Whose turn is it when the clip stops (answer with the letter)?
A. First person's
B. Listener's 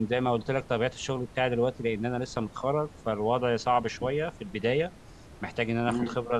A